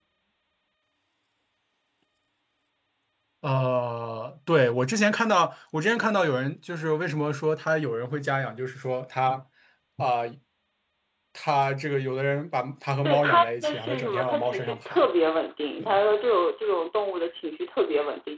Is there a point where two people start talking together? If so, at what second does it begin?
13 s

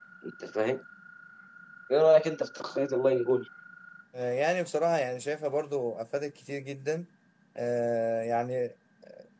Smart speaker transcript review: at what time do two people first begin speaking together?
none

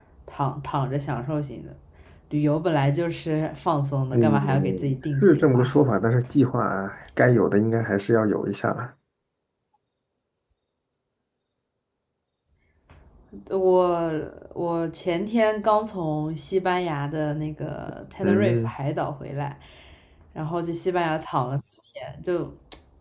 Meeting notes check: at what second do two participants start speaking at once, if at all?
4 s

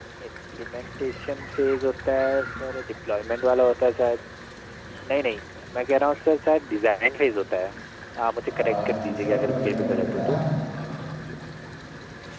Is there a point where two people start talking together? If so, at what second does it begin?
9 s

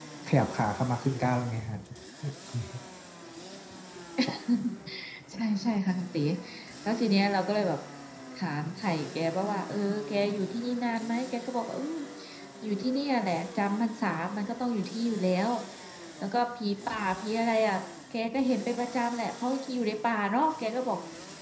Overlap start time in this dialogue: none

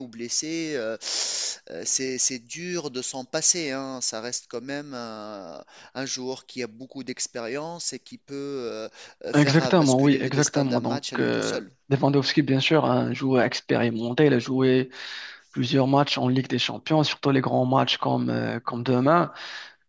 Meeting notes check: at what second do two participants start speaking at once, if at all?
9 s

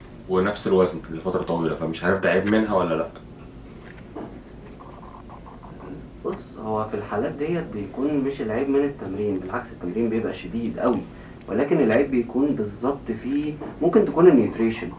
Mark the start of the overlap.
none

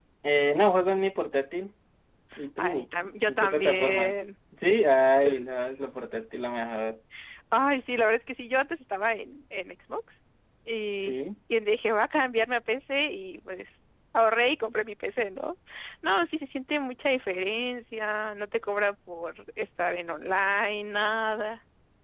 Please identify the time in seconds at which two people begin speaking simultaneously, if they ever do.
3 s

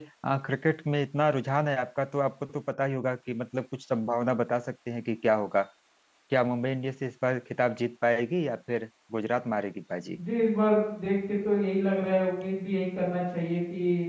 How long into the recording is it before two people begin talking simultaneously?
none

